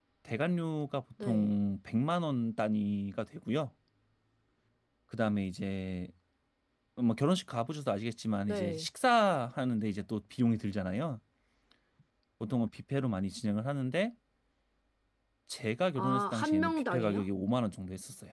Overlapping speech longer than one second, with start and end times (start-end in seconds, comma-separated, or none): 15.9-17.2